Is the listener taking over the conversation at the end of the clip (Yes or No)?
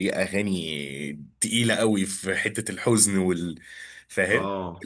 Yes